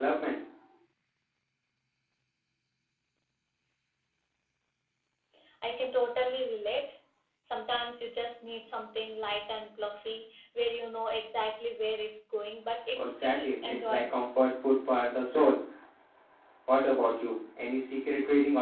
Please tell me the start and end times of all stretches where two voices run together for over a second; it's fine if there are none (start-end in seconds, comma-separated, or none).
13.0-14.2